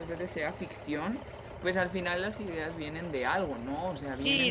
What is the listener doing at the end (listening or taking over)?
taking over